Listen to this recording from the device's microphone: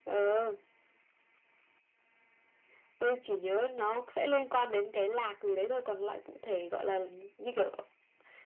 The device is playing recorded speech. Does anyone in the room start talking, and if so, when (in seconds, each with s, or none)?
none